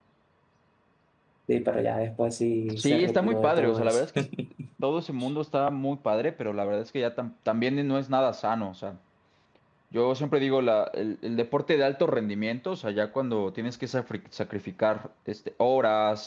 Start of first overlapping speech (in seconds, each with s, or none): 2.7 s